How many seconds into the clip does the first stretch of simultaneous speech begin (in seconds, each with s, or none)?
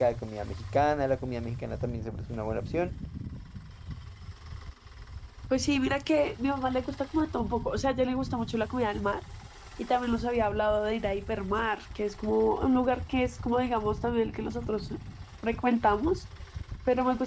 none